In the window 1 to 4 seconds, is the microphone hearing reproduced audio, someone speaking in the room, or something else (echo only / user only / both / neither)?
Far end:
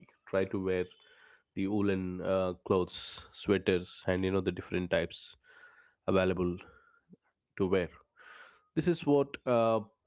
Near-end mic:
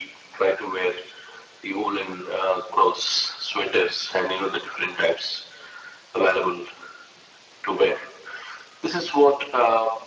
echo only